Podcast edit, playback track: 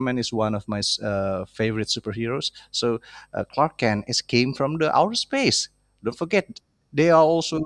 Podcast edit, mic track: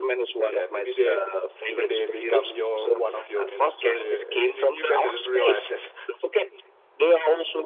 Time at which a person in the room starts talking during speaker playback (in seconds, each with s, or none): 0.4 s